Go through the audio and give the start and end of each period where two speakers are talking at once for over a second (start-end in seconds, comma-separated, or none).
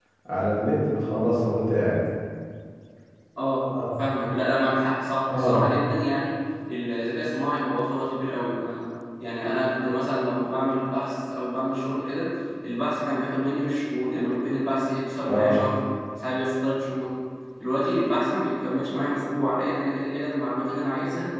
none